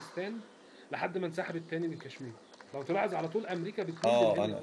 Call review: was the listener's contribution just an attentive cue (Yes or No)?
No